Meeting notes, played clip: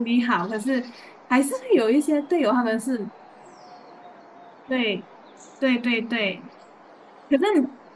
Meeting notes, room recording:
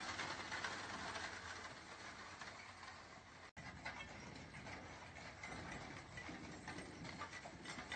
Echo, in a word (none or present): none